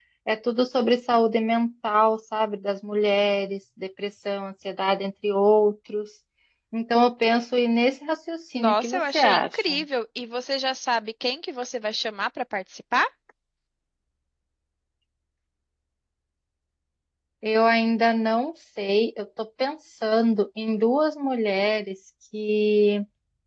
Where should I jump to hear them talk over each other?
8.5 s

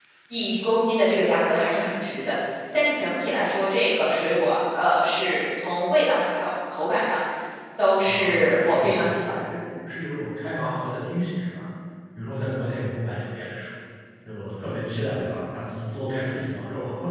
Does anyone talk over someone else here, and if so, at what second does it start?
8.1 s

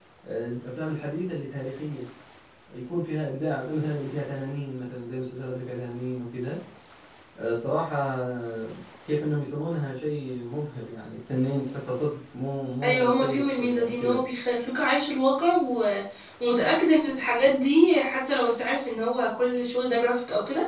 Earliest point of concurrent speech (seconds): 12.8 s

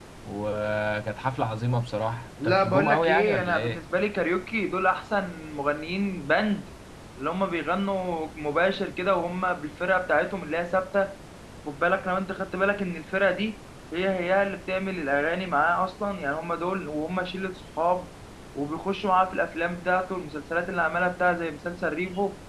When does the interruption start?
2.4 s

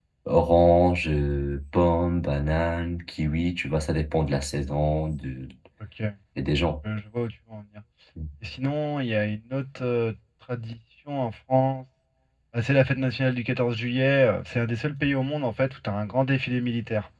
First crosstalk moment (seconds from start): none

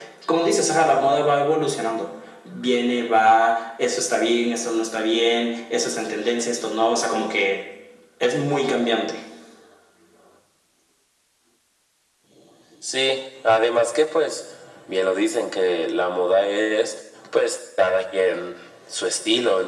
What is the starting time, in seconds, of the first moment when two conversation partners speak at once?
none

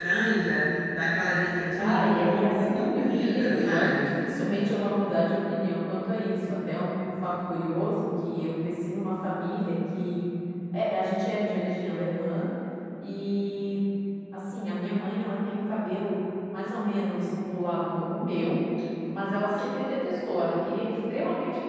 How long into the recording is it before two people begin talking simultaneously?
1.8 s

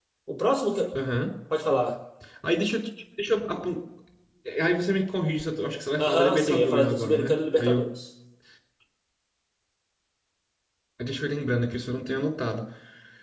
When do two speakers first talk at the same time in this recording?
6.0 s

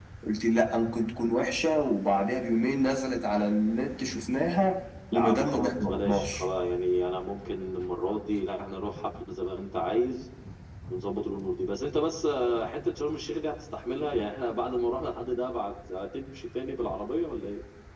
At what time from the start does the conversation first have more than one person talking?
5.1 s

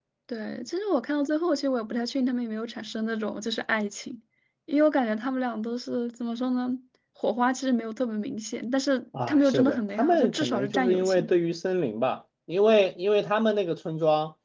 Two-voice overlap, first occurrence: 9.1 s

